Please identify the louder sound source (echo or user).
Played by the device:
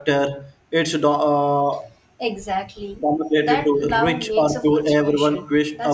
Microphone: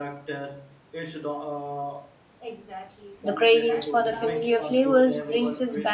user